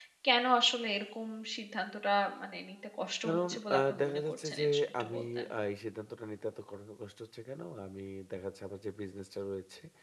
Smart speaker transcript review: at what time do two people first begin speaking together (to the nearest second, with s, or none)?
3 s